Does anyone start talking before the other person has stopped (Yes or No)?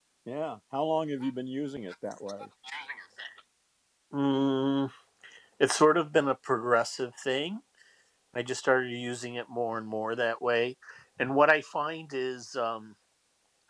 No